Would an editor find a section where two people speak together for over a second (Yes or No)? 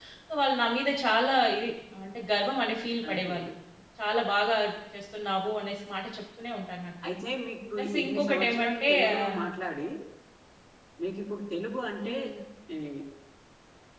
Yes